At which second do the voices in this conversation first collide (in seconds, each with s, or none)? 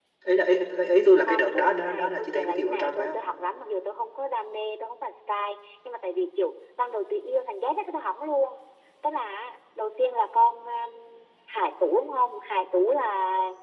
1.3 s